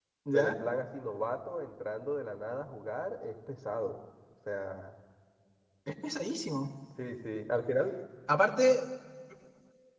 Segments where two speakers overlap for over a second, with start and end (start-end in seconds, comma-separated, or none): none